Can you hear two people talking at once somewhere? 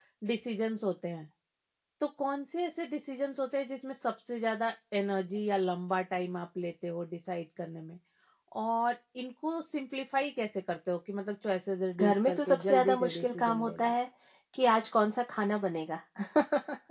Yes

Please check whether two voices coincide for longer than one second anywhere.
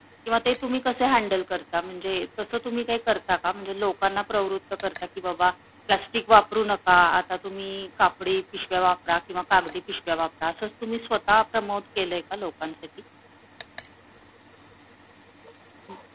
No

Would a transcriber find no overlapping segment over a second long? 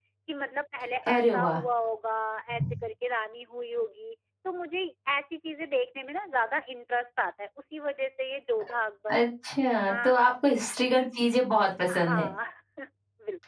Yes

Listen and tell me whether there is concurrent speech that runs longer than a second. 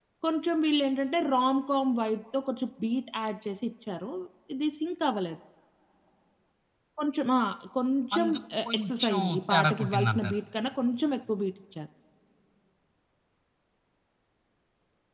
Yes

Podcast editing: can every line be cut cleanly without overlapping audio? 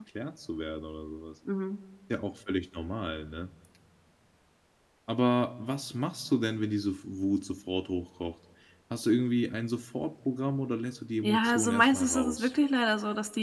No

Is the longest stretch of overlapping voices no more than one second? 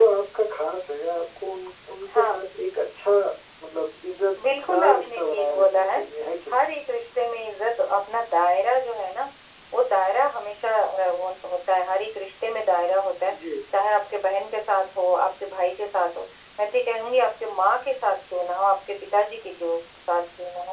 No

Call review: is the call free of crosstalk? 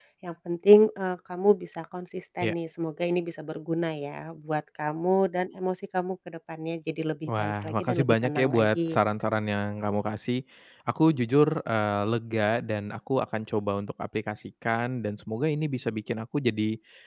No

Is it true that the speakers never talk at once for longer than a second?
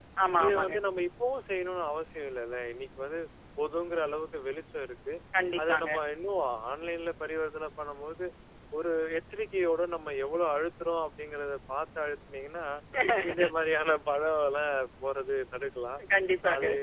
Yes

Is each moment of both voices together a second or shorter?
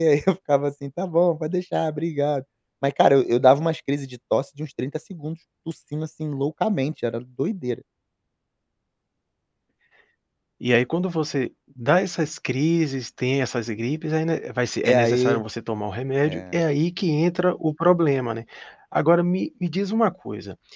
Yes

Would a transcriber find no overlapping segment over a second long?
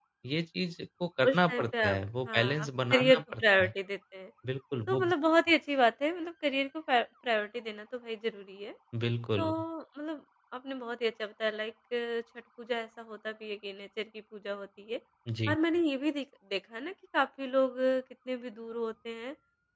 No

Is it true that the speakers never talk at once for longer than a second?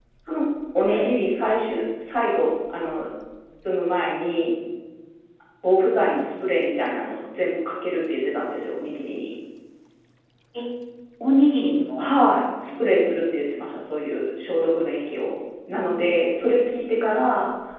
Yes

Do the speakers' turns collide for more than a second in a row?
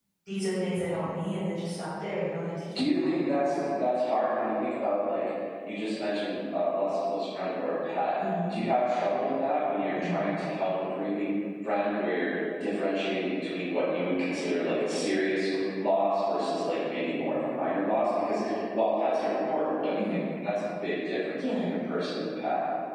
No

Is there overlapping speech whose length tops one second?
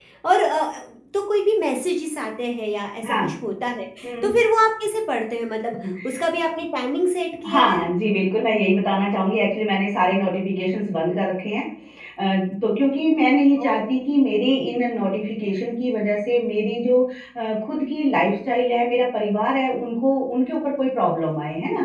No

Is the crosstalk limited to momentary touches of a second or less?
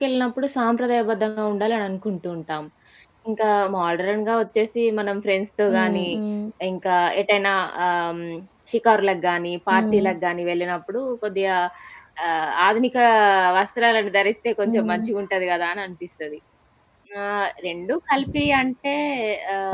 Yes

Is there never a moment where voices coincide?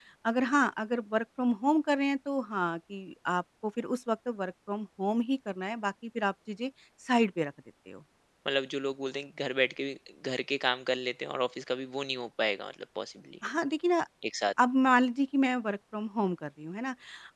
Yes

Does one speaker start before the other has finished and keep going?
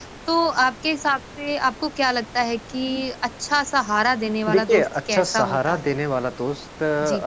Yes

